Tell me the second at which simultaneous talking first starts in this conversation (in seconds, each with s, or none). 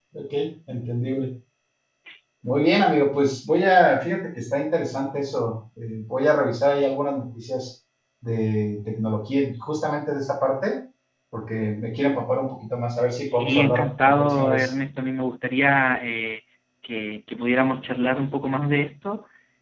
13.2 s